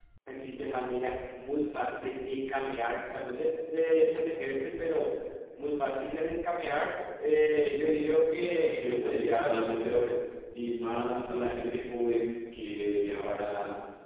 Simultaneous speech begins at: 8.8 s

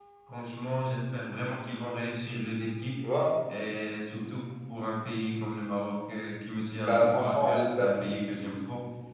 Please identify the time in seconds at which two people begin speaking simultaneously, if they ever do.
6.9 s

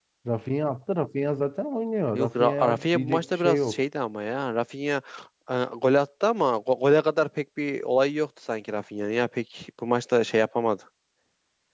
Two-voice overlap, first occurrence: 2.1 s

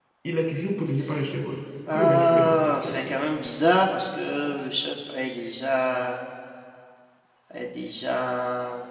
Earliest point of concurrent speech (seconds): 1.9 s

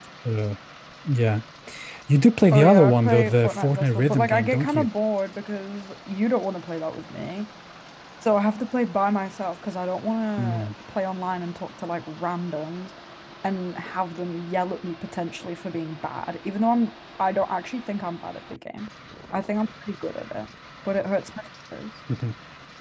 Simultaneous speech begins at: 2.5 s

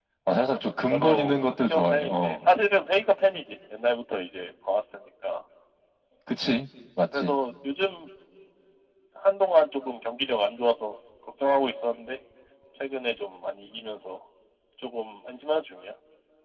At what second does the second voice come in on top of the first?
0.9 s

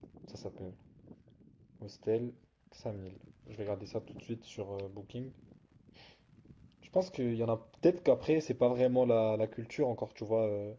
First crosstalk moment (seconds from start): none

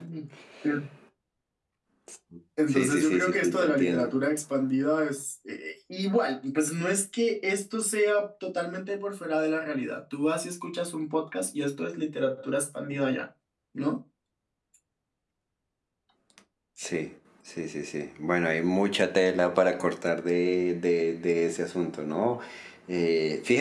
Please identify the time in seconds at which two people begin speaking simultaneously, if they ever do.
2.7 s

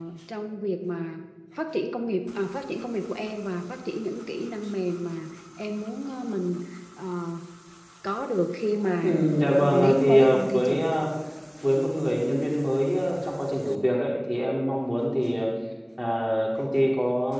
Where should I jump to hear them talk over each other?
9.6 s

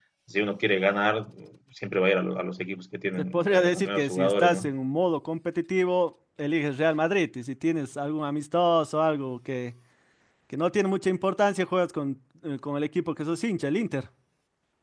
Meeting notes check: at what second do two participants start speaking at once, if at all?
3.2 s

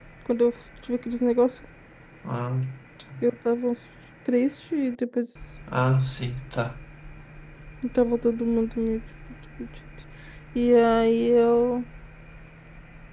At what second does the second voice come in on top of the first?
none

